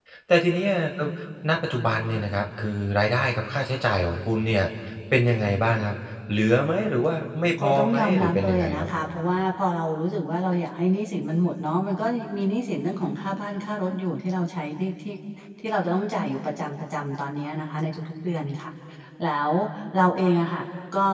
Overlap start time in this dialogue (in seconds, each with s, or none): 7.6 s